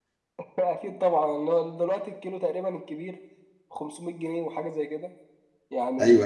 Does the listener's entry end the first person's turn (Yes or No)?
No